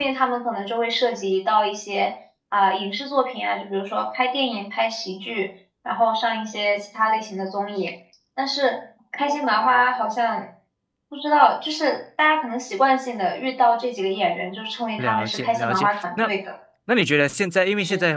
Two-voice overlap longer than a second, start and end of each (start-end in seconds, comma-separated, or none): 15.0-16.3